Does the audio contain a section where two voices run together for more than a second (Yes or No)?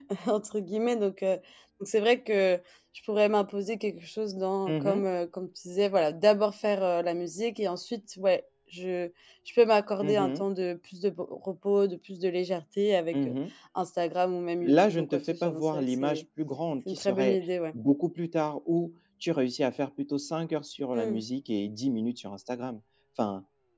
Yes